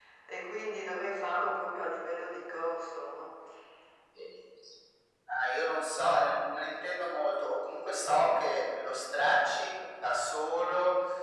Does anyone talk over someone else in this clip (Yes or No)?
No